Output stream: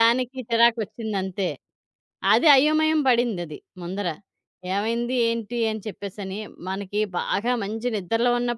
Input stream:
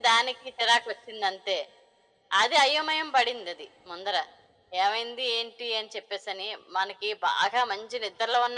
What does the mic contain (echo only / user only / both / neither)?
echo only